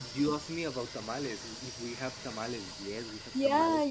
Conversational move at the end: taking over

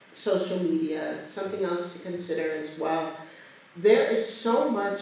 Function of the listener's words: listening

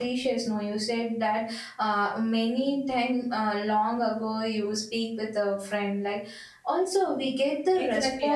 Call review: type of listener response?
taking over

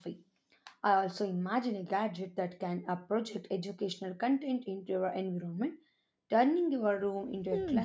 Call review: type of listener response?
taking over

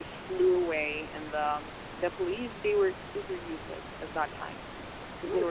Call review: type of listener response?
listening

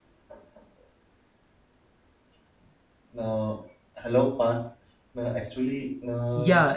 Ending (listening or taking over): taking over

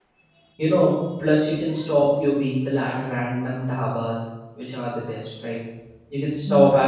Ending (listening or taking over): listening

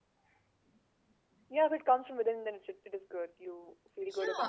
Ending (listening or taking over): taking over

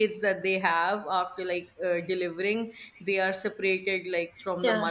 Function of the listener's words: listening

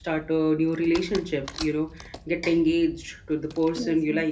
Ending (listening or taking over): listening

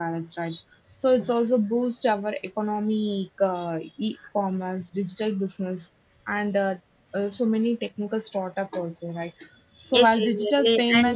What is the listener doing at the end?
taking over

